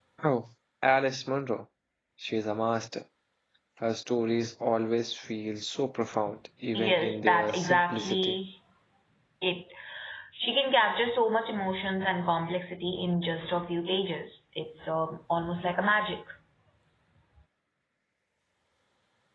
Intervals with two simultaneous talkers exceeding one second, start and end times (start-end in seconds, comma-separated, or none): 6.8-8.3